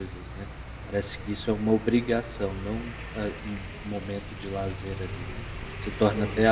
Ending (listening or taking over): listening